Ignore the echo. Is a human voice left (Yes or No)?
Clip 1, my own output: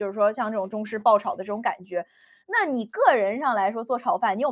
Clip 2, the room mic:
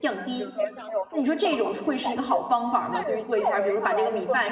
Yes